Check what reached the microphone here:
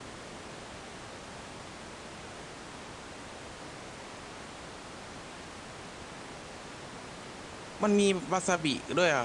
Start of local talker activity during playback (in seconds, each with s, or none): 7.8 s